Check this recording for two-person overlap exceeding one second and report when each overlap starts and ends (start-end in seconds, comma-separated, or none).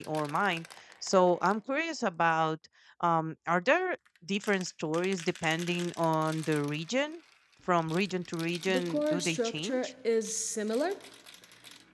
8.7-9.9